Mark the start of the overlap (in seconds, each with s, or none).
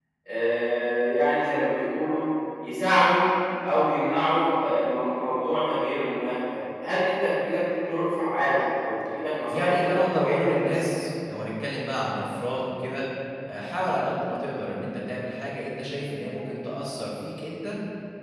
9.5 s